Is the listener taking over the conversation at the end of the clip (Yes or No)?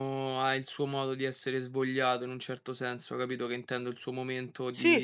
No